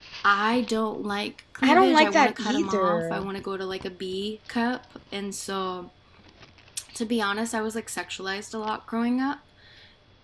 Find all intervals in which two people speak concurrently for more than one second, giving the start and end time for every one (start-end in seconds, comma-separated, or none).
1.6-3.2